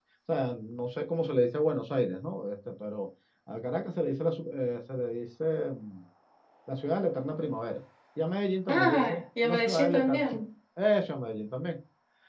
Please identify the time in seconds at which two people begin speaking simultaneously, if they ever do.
8.7 s

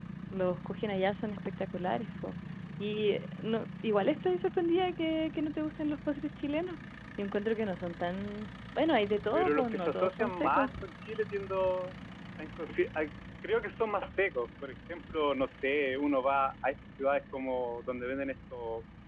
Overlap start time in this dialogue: 9.3 s

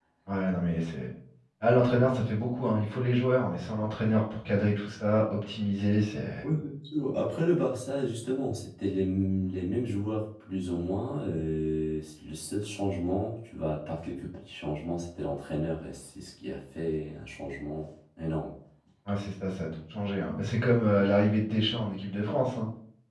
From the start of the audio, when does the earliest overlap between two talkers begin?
none

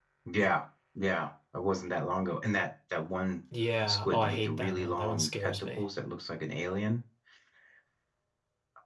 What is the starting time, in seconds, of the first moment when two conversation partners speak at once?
3.9 s

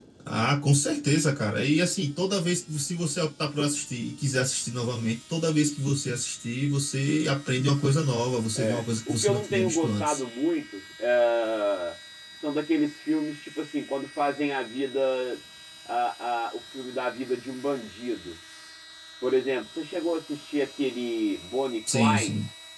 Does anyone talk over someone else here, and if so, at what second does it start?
8.6 s

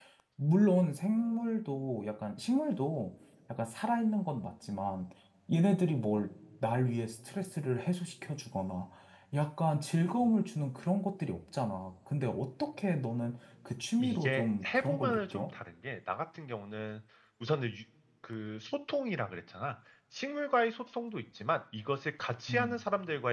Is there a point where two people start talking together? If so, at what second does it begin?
14.0 s

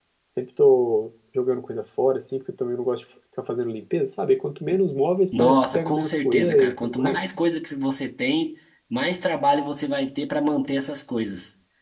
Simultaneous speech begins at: 5.4 s

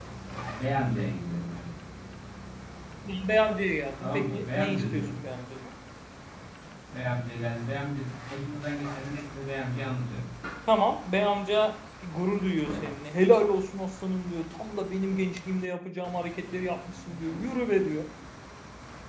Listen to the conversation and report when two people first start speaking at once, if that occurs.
4.0 s

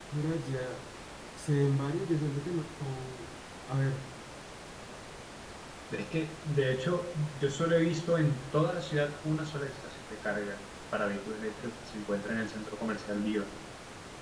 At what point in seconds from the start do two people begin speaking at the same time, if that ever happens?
none

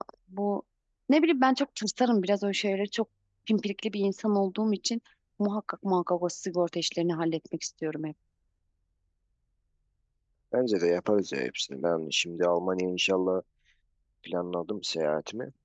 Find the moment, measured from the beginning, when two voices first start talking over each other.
none

